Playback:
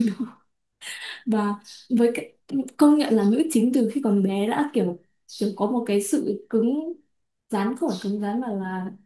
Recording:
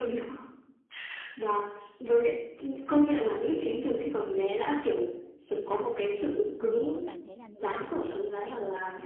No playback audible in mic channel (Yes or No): No